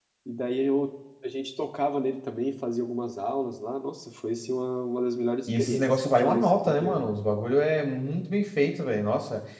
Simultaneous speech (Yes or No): Yes